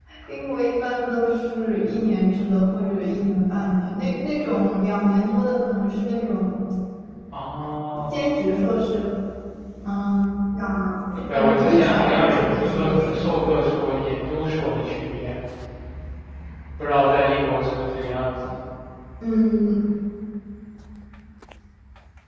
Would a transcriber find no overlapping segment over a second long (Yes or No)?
No